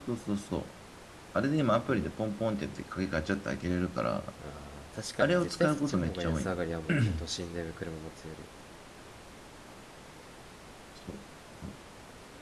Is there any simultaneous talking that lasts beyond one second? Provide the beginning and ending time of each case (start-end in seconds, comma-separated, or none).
5.2-6.5